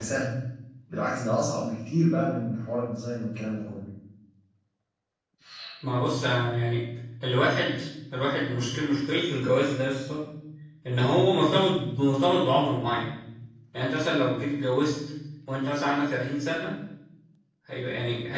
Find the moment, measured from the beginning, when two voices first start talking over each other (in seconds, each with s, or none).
none